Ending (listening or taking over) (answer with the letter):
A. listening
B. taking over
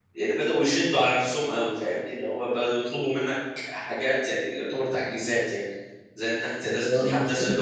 A